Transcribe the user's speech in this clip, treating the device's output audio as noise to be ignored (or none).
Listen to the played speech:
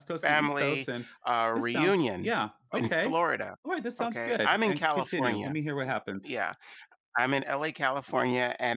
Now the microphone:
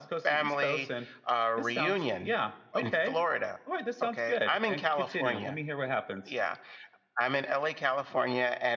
none